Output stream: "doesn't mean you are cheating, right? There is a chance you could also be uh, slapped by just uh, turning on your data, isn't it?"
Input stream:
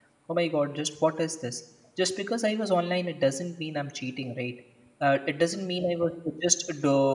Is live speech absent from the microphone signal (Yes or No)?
No